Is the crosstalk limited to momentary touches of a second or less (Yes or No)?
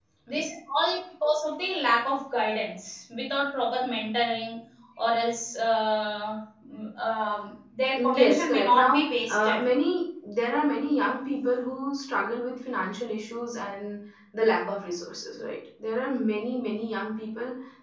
No